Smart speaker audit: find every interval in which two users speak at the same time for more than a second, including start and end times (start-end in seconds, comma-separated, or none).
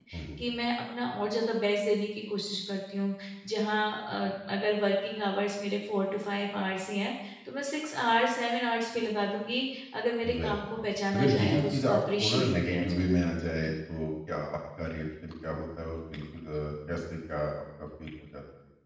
11.1-13.1